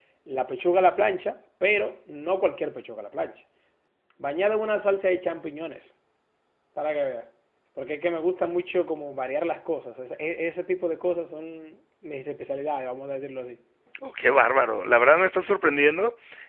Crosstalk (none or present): none